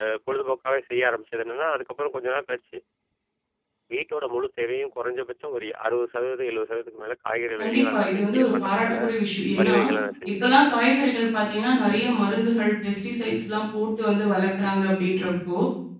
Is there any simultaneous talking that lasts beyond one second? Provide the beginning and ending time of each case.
7.6-9.0

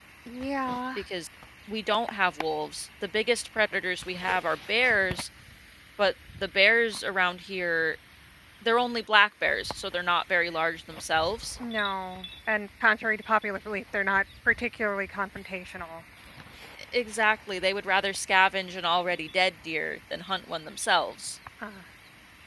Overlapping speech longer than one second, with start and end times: none

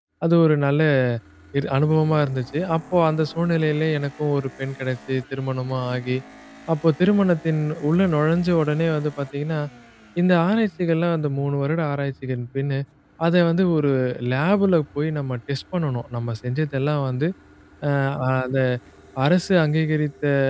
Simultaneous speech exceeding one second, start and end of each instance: none

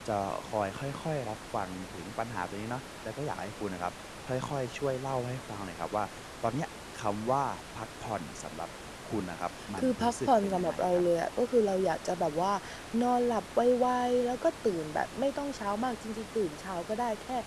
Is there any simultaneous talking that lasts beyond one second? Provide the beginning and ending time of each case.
9.8-11.0

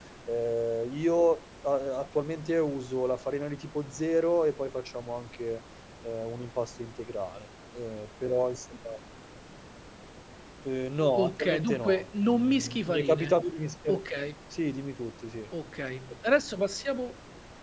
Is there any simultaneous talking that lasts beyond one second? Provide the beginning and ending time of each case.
11.2-13.4

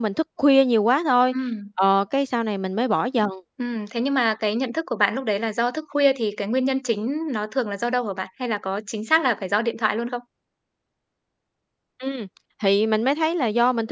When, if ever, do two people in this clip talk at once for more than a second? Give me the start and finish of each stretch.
none

